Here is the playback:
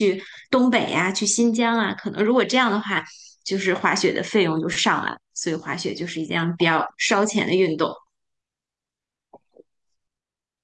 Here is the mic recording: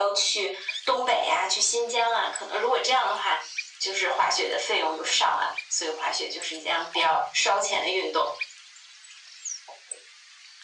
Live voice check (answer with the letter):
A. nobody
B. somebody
A